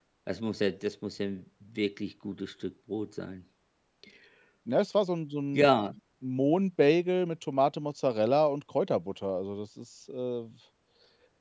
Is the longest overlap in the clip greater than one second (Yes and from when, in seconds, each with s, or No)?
No